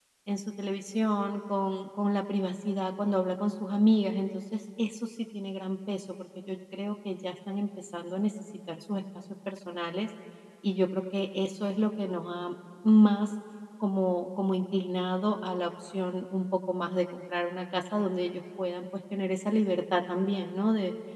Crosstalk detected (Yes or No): No